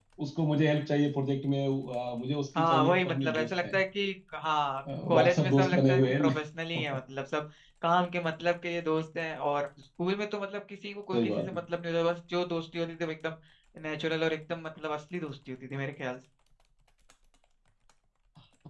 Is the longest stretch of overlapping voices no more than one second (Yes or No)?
No